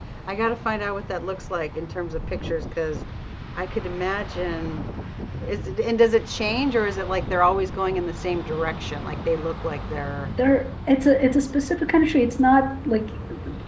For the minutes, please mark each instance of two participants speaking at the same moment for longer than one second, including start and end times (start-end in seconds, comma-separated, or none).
none